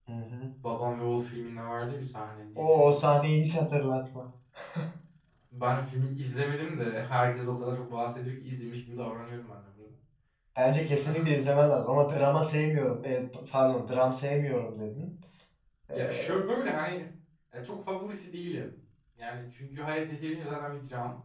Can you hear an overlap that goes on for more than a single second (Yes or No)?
No